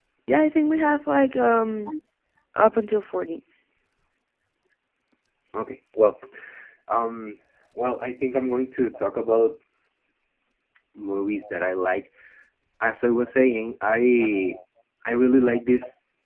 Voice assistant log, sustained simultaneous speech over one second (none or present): none